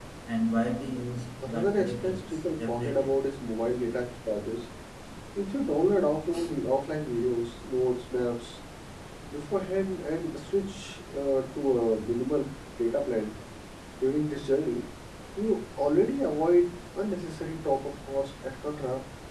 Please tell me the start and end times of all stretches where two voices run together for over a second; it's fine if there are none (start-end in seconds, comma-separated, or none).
1.5-3.1